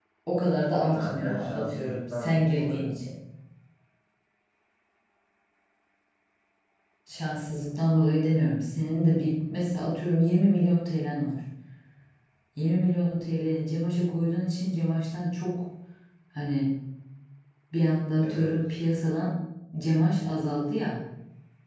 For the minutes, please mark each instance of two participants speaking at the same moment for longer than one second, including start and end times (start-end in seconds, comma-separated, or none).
0.9-3.0